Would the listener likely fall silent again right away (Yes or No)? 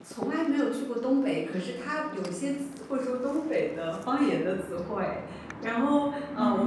Yes